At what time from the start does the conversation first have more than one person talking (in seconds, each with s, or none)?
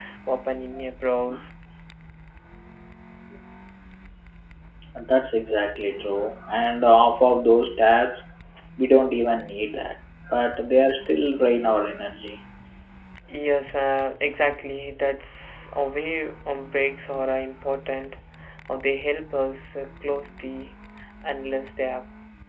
none